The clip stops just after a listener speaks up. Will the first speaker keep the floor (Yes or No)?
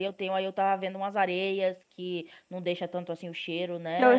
No